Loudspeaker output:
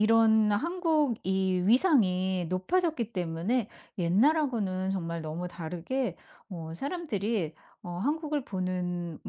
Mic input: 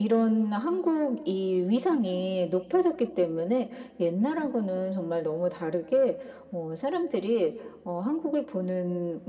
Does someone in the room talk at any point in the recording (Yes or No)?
No